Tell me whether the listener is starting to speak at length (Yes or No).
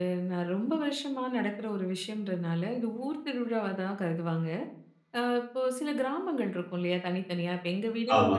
No